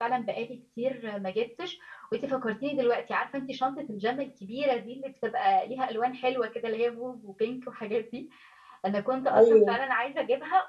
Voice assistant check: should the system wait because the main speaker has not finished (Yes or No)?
Yes